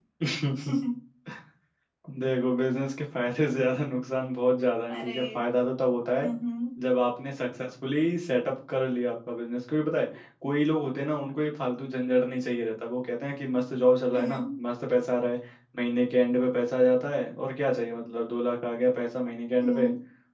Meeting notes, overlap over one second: none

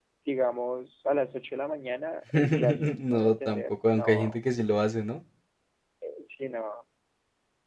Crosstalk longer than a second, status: present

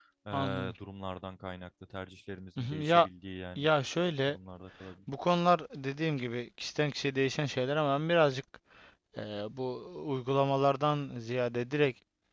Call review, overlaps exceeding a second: none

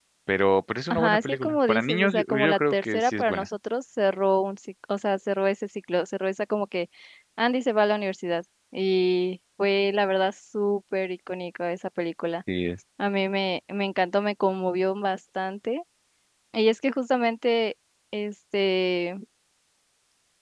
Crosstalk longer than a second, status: present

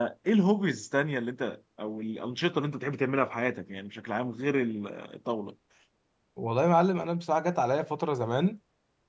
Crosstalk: none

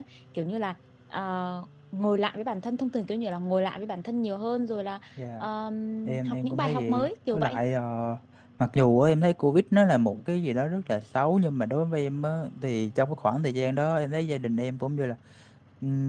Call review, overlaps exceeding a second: present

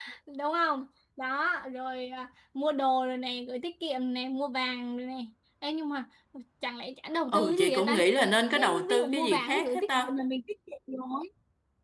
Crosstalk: present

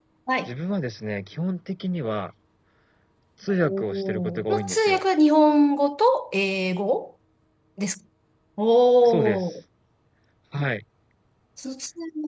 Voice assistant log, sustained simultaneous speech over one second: present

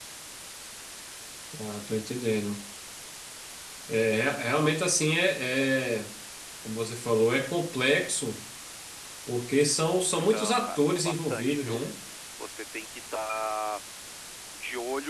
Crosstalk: present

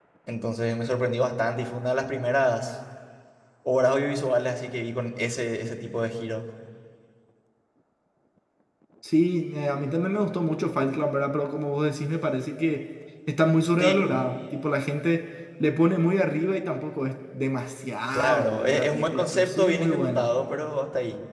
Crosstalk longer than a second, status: present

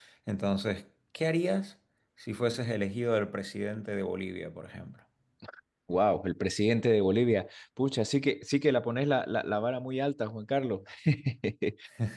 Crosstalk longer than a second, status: none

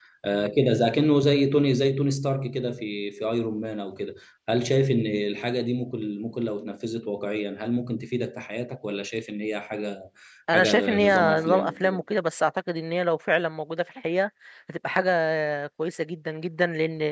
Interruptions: present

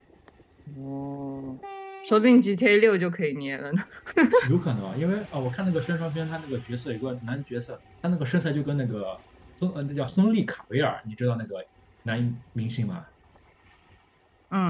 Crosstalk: none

